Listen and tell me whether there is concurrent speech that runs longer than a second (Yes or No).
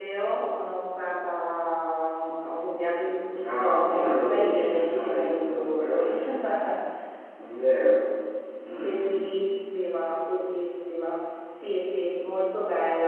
Yes